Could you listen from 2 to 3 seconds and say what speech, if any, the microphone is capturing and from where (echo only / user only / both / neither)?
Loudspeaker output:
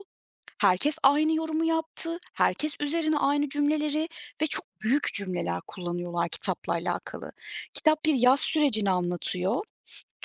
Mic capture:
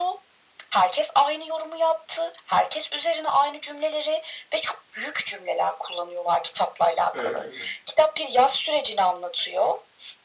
echo only